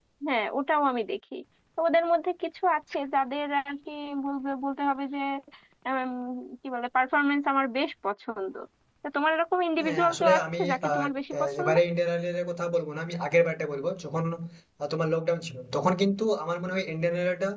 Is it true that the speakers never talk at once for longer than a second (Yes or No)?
No